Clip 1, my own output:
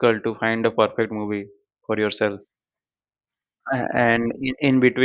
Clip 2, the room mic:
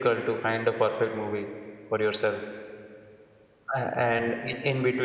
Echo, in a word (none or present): present